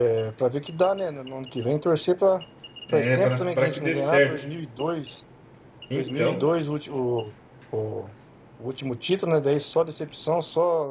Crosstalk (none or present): present